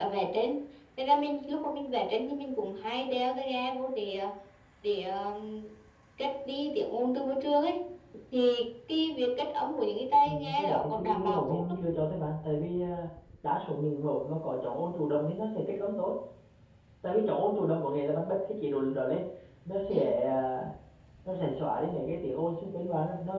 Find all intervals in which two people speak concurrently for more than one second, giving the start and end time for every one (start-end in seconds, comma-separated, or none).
10.2-11.8